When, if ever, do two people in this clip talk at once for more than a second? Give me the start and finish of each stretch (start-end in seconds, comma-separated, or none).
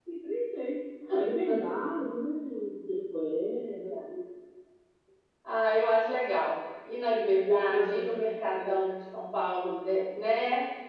7.5-8.8